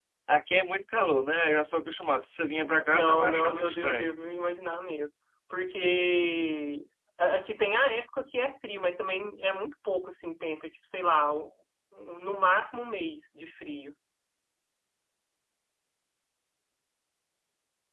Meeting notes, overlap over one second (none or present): present